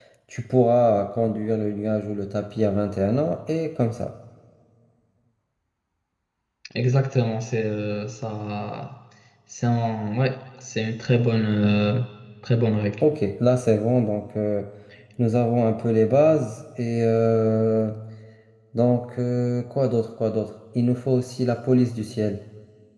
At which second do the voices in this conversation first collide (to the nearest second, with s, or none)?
none